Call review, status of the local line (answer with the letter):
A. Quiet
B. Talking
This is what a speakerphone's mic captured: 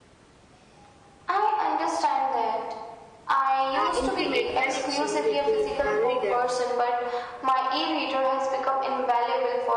B